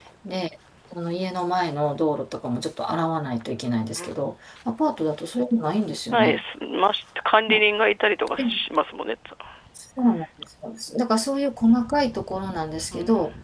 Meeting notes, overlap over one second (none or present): none